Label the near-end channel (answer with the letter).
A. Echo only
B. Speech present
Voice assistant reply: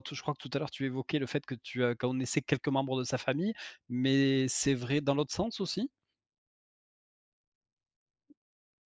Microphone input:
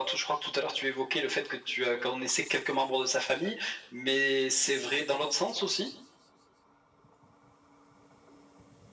A